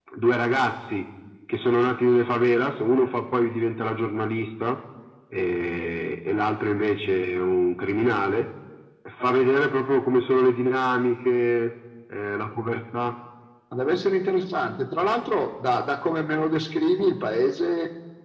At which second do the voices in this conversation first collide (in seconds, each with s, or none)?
none